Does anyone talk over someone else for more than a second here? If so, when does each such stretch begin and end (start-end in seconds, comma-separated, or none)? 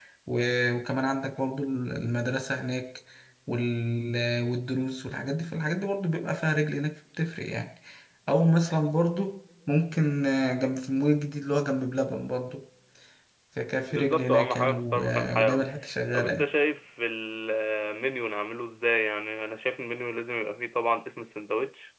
13.9-15.7